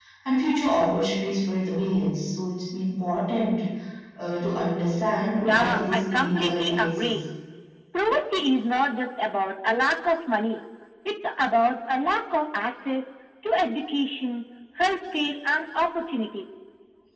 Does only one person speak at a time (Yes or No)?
No